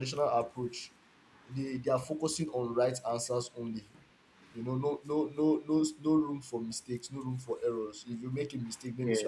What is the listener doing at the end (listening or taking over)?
listening